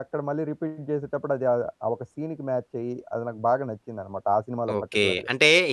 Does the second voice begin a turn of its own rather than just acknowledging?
Yes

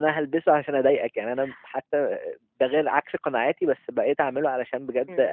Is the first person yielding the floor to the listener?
Yes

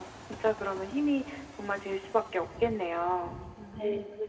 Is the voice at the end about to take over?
Yes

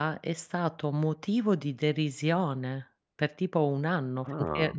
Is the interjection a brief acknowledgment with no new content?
Yes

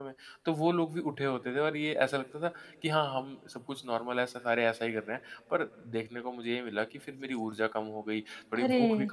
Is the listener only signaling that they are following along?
Yes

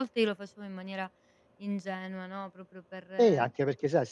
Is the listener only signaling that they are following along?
No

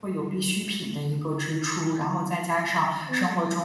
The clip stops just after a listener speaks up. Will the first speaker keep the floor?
Yes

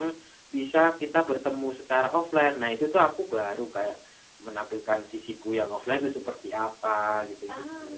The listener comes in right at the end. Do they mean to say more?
Yes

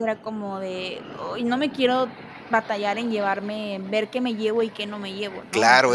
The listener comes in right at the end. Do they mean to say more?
Yes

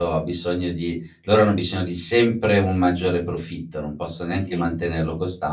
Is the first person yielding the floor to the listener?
No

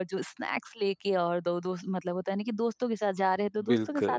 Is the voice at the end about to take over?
No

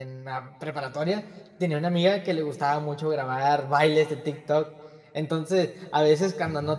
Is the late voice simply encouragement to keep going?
Yes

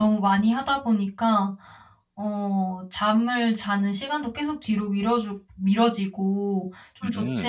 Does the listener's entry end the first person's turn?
No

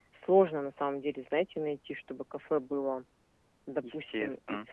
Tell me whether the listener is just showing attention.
Yes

